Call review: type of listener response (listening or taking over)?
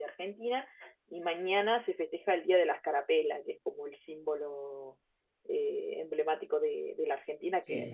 listening